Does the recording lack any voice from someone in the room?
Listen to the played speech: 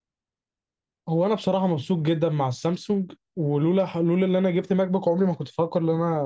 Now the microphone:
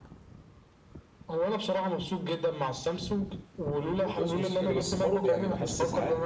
No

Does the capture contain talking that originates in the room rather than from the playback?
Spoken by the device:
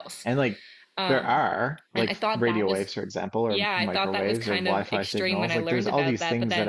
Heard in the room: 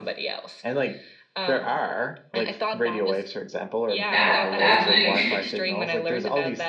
Yes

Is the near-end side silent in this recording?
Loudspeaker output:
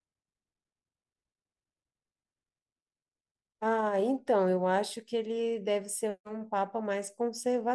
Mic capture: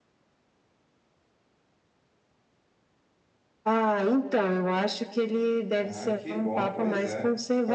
No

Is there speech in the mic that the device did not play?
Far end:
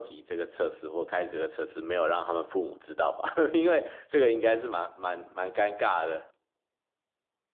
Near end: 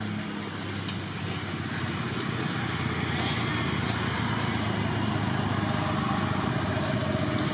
No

